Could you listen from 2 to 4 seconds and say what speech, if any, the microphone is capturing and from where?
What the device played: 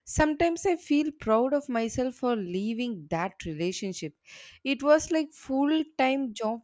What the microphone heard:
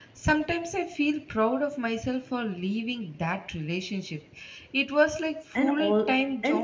echo only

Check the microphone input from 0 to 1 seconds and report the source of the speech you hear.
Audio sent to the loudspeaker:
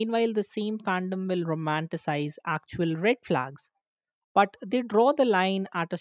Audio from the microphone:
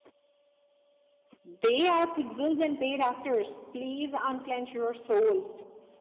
neither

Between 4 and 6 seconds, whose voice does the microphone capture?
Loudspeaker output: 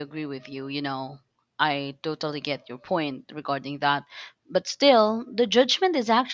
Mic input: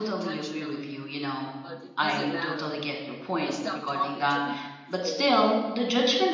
both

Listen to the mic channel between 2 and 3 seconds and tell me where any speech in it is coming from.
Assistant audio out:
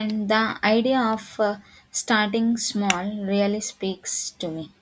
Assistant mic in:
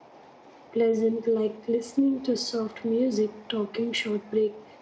user only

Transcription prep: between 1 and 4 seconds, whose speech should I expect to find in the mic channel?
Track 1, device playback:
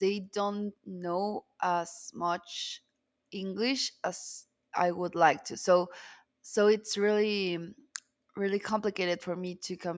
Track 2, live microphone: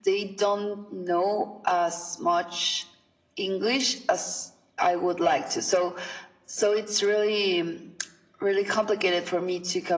echo only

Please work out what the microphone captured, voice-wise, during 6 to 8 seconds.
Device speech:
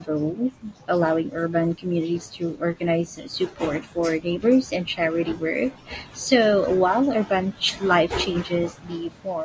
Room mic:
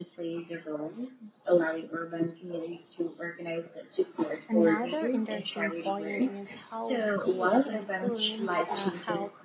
both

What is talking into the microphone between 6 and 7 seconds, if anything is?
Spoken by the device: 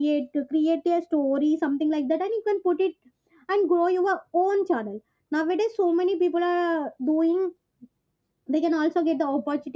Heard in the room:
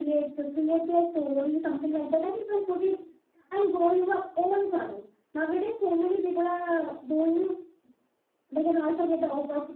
echo only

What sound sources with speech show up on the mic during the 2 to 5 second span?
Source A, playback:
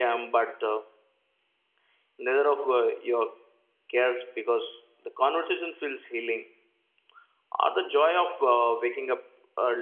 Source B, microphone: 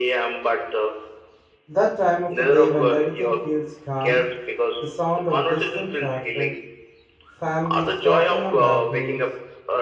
both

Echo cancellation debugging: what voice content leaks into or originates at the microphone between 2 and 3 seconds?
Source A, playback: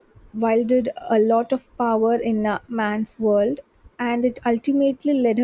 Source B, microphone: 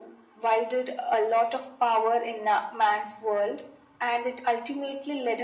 echo only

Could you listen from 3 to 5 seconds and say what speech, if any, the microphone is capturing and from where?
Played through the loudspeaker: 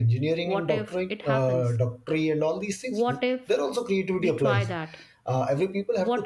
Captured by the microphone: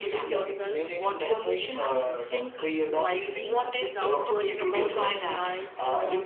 both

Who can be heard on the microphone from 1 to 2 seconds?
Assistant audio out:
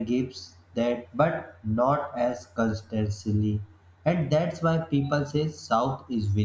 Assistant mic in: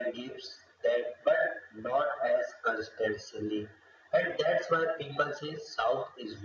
echo only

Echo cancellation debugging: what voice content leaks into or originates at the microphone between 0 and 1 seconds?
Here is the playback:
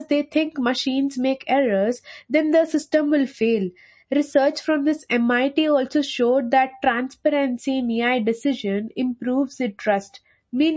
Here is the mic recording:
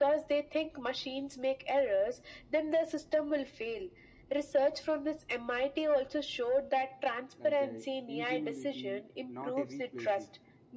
echo only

